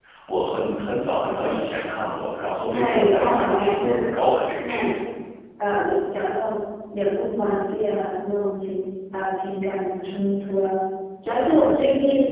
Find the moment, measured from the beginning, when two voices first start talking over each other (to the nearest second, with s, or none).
3 s